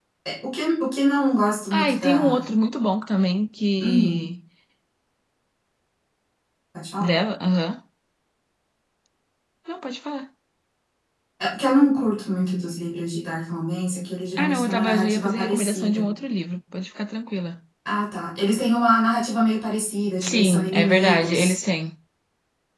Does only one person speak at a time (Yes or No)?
No